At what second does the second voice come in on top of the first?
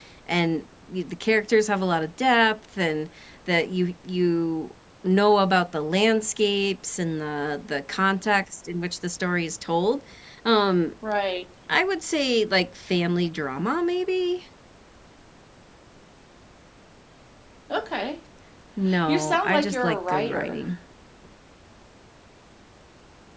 19.1 s

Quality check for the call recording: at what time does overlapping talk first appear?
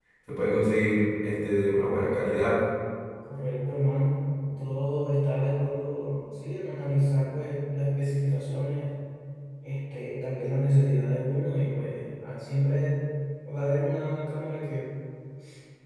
none

